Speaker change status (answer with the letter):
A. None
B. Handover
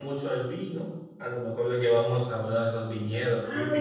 B